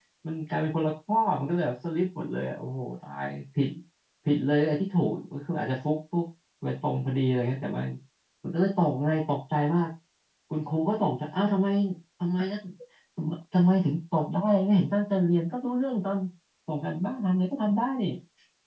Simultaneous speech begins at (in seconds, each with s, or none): none